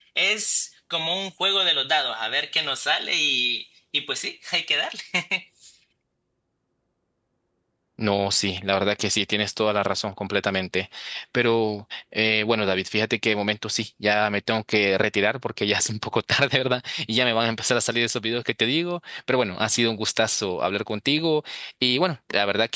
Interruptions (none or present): none